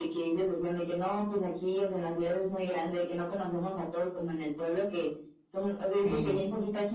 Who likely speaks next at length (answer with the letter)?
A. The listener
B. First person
B